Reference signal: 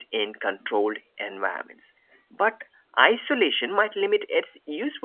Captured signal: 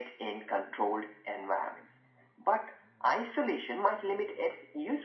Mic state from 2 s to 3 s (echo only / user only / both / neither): echo only